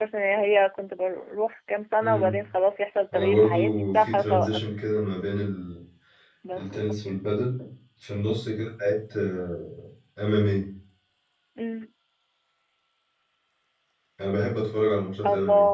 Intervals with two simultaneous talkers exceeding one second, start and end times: 3.1-4.6

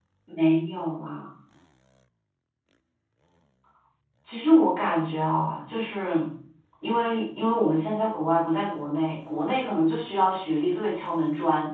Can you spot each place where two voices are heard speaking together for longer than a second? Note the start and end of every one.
none

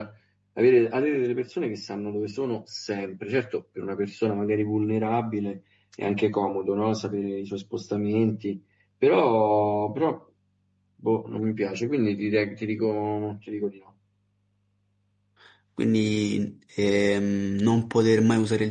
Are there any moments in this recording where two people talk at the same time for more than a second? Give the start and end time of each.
none

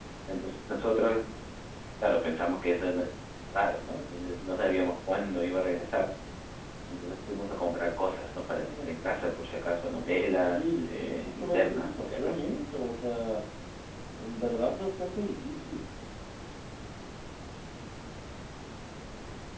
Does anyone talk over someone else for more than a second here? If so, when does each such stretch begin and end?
10.4-12.5

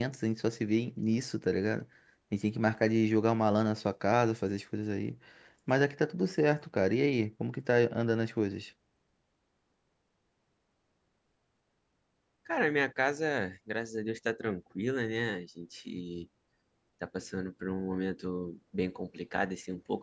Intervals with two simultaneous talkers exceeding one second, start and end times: none

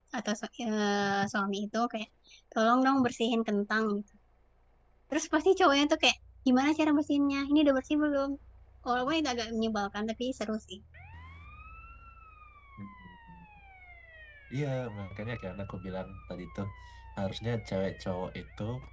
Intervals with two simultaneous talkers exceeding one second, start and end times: none

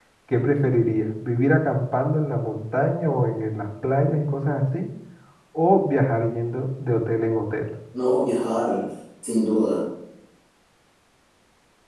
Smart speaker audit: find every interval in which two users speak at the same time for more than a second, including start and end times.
none

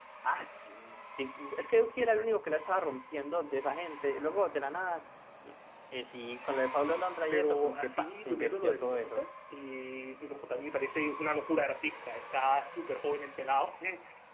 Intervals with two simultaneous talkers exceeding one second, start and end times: 7.3-9.2

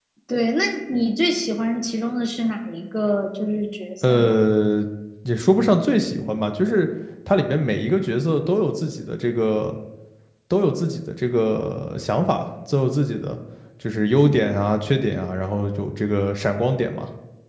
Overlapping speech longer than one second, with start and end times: none

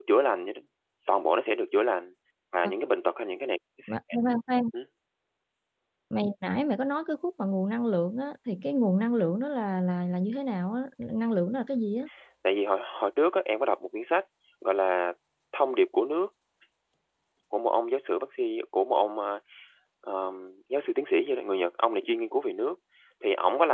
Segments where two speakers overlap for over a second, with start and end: none

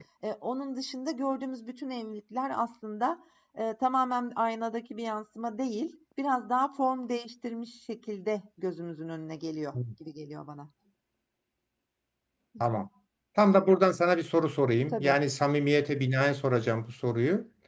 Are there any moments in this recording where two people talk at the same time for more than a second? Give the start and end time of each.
none

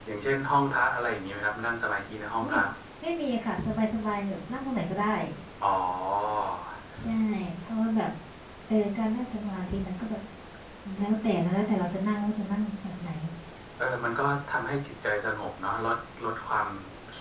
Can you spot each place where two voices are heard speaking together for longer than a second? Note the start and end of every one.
none

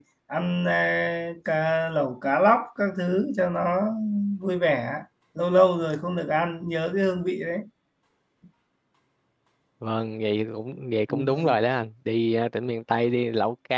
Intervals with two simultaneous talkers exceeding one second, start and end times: none

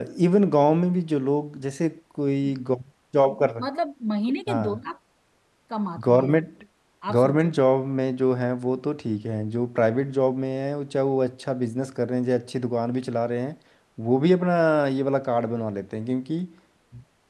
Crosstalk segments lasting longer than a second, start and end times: none

